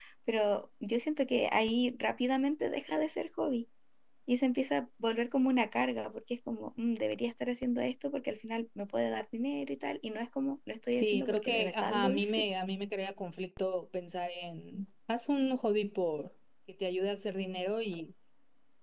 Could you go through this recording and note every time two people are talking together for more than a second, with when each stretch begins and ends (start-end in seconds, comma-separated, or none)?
11.0-12.4